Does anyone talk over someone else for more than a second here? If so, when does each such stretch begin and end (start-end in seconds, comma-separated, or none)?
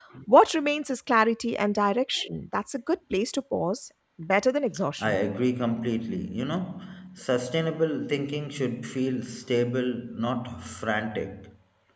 none